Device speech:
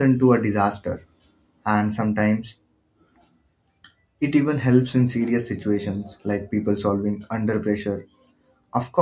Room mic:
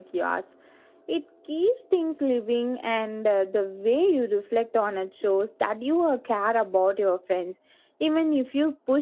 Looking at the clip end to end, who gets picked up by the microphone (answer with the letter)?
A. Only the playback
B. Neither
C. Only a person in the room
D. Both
C